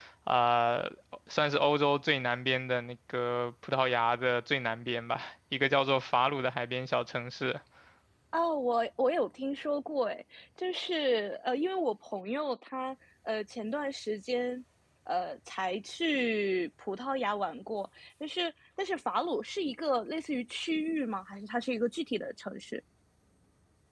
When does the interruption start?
none

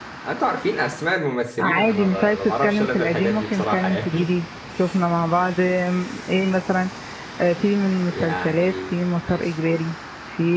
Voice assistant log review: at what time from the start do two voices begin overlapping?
1.6 s

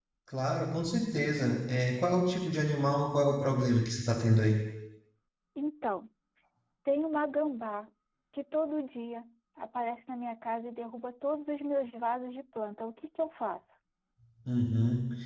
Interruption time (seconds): none

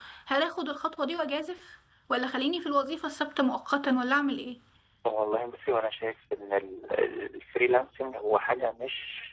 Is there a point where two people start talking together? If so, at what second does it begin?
none

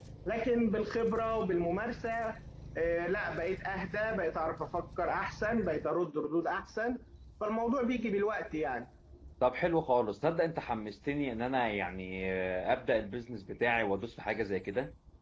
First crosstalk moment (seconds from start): none

